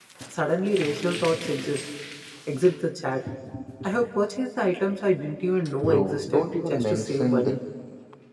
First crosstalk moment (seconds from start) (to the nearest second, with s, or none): 6 s